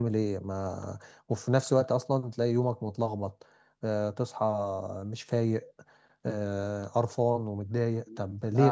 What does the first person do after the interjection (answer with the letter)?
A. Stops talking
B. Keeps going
A